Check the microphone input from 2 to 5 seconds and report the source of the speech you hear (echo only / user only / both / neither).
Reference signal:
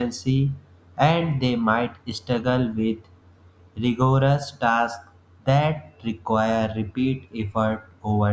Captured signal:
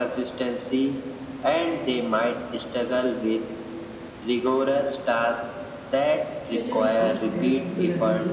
echo only